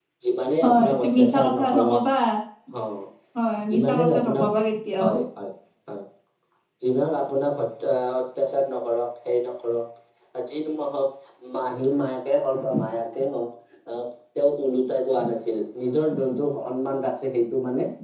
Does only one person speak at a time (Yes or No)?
No